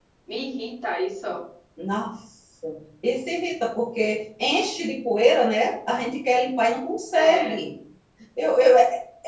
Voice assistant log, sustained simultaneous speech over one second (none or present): none